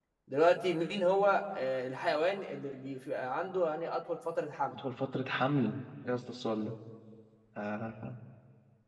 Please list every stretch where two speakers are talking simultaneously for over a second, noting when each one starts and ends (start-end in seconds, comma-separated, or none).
none